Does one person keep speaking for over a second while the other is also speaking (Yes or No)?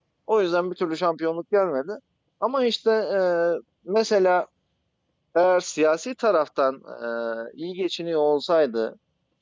No